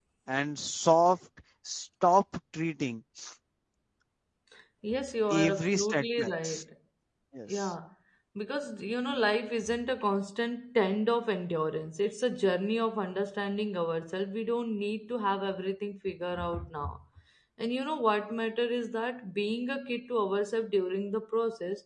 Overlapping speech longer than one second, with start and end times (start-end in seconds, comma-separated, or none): 5.3-6.6